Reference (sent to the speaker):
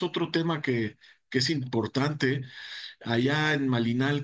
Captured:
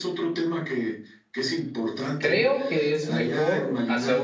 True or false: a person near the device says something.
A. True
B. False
A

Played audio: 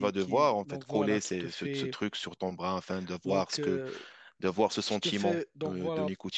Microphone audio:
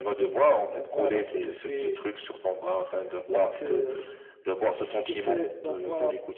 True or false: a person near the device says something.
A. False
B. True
A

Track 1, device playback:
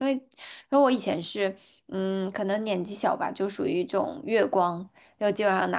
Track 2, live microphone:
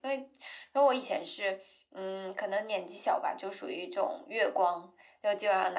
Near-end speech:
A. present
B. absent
B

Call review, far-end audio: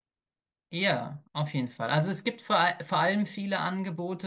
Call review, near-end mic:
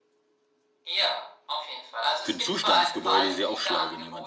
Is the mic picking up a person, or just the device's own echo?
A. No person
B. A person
B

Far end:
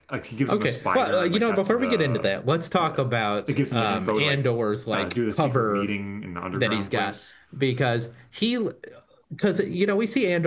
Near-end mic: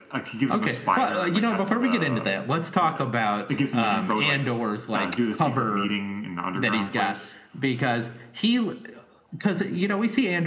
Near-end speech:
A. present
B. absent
B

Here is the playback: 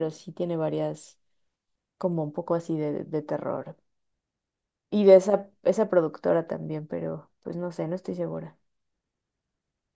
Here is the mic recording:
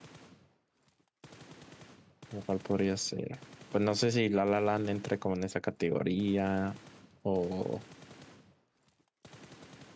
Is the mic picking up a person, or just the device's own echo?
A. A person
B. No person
A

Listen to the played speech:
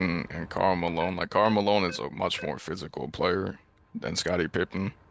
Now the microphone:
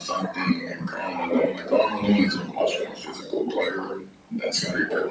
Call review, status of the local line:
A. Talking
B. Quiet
B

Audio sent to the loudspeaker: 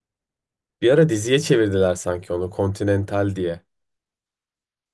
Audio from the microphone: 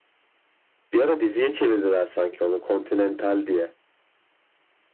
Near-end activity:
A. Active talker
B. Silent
B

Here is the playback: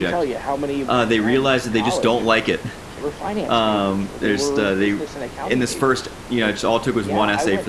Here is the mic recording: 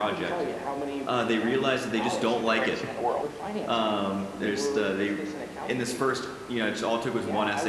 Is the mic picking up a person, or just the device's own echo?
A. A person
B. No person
A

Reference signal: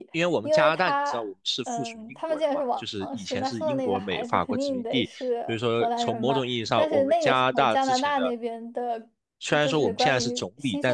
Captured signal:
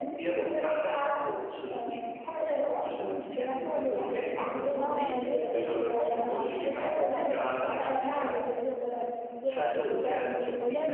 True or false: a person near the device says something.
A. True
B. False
A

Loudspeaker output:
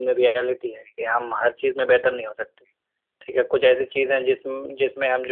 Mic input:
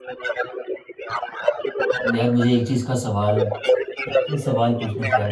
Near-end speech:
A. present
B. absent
A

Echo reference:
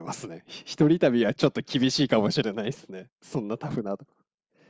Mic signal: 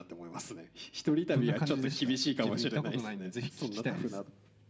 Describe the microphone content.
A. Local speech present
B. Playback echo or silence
A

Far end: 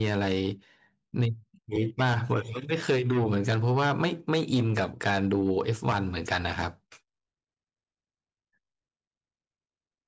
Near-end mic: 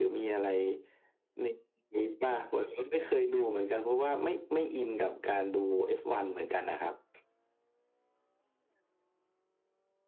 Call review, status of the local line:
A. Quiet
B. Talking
A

